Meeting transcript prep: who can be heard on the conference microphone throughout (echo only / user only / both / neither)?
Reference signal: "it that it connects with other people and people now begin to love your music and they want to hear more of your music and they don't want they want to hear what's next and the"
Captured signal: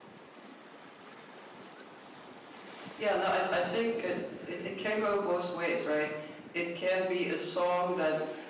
user only